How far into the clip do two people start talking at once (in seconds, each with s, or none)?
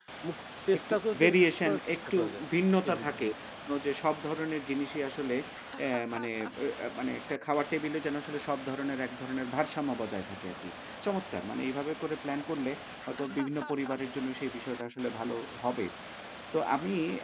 0.8 s